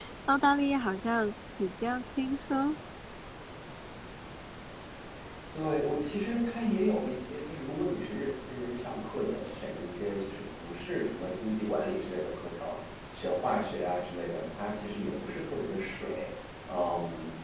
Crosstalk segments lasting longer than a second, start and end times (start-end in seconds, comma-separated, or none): none